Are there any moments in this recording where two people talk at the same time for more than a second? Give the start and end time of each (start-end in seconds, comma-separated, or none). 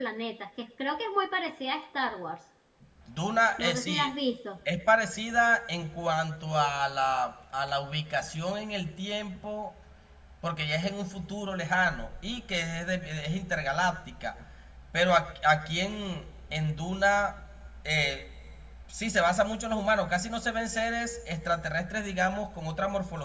none